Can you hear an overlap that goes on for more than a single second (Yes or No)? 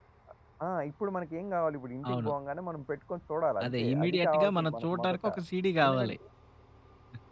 Yes